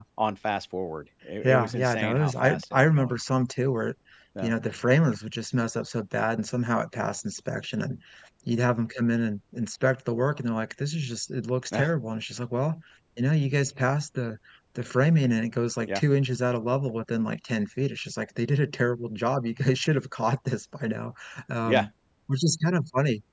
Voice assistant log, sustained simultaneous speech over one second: present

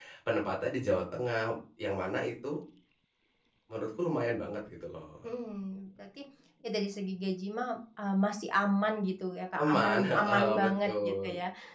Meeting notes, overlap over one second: present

